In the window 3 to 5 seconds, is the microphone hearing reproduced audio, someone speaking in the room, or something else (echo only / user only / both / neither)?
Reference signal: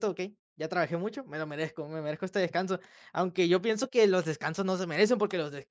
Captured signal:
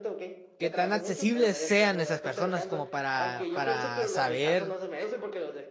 both